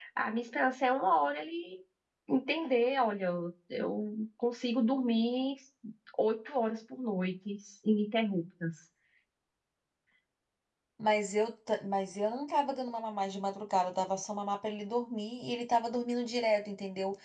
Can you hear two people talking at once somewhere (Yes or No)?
No